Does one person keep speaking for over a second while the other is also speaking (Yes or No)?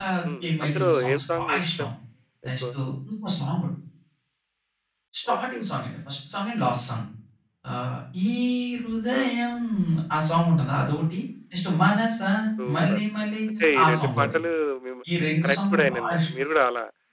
Yes